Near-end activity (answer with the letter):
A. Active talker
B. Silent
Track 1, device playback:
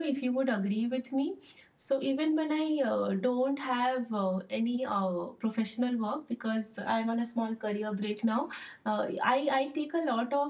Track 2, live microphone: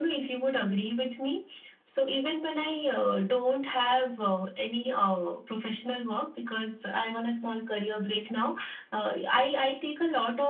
B